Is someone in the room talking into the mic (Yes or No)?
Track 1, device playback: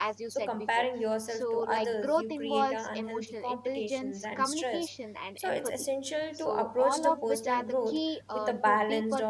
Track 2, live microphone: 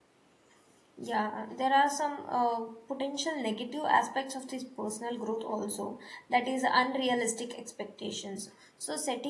Yes